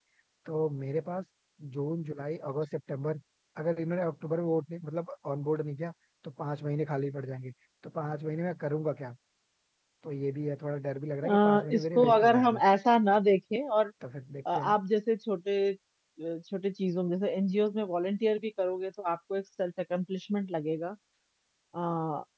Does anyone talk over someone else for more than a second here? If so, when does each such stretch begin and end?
11.2-12.6

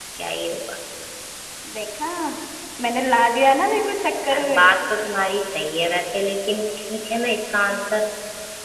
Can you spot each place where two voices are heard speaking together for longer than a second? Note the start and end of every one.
none

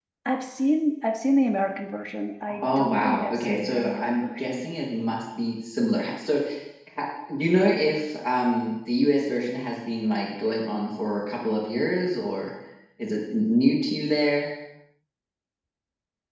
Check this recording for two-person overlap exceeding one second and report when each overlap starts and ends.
2.6-4.7

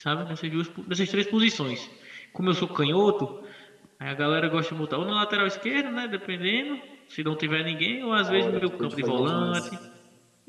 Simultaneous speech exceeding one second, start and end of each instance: 8.2-9.7

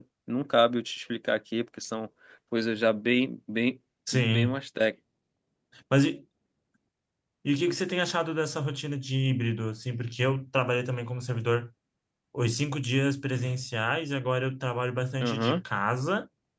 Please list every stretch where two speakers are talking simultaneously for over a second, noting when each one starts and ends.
none

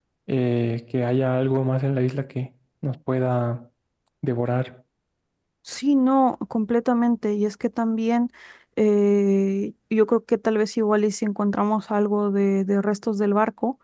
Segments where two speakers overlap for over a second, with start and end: none

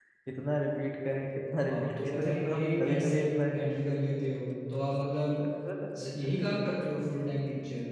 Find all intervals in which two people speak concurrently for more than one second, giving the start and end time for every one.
1.7-3.2

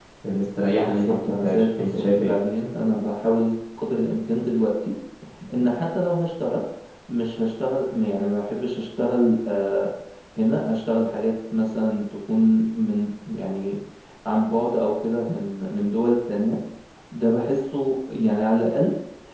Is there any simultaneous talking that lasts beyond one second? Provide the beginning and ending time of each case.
0.7-2.4

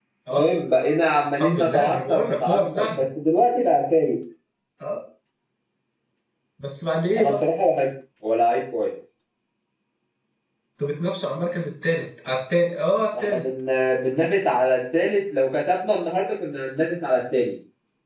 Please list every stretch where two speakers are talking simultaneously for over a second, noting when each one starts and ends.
1.4-3.0

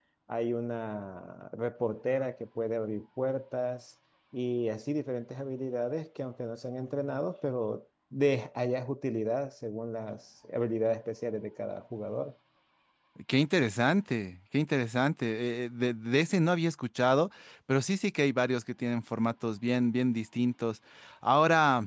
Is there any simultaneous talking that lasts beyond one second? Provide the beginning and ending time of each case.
none

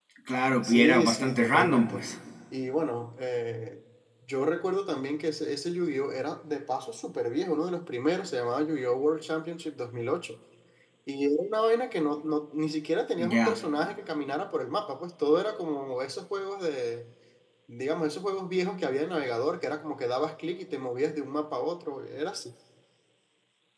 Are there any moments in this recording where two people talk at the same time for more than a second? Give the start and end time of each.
0.6-2.0

